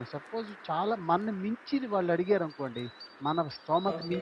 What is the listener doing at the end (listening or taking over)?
listening